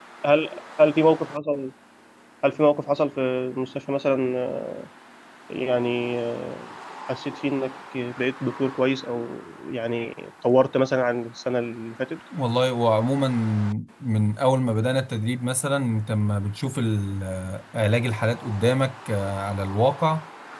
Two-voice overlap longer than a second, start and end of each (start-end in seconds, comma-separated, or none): none